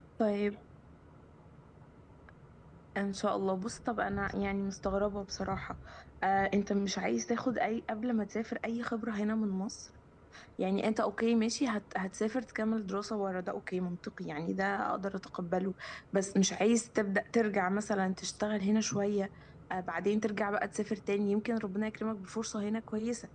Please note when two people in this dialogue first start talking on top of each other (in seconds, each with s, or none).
none